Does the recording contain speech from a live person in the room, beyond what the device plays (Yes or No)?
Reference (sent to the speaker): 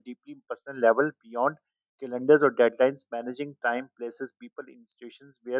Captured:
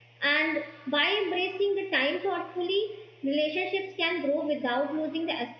Yes